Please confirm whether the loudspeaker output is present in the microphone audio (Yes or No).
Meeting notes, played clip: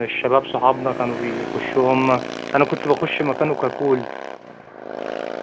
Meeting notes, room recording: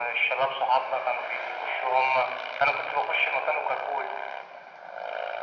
Yes